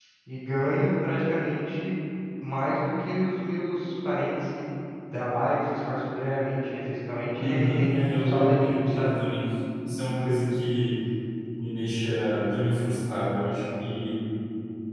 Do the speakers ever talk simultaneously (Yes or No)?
Yes